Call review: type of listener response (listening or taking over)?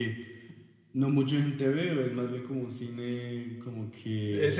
taking over